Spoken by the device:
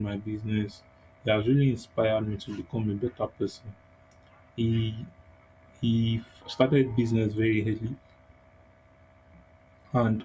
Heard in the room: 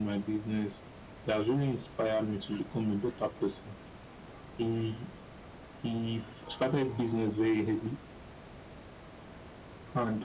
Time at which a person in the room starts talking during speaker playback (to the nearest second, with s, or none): none